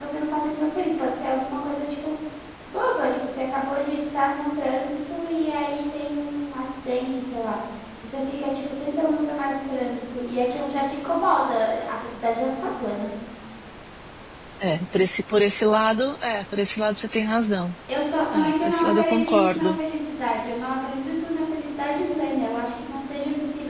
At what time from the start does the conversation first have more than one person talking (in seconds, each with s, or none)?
18.3 s